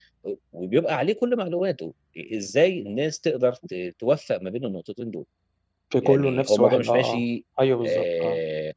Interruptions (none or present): present